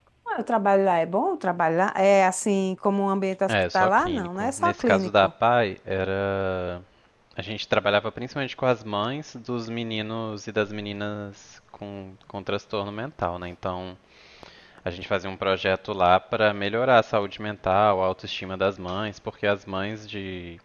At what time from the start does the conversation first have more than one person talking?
3.5 s

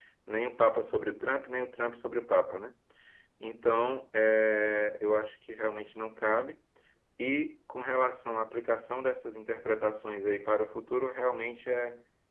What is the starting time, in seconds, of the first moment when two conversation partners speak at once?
none

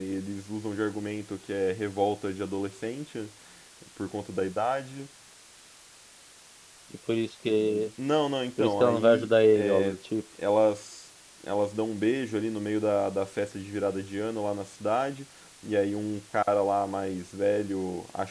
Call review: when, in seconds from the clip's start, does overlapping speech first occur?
8.6 s

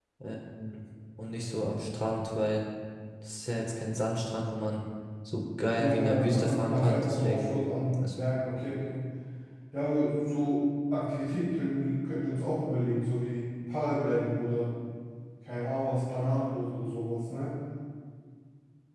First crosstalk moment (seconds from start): 5.8 s

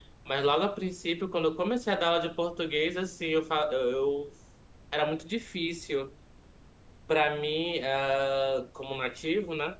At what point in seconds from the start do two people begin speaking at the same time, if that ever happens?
none

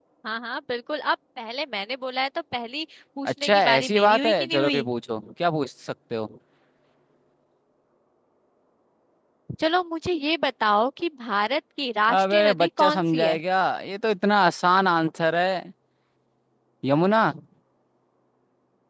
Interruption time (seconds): 3.3 s

